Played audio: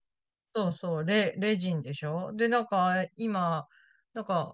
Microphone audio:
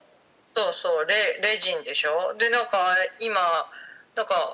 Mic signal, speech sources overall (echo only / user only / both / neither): echo only